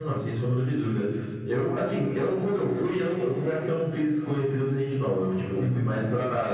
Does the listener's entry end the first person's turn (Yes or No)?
No